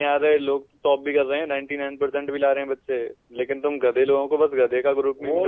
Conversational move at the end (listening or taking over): taking over